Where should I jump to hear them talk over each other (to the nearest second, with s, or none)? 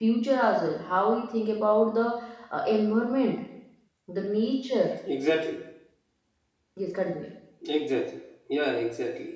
none